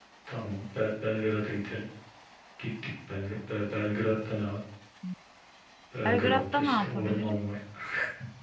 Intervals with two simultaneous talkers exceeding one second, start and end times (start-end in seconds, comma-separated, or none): 6.0-7.5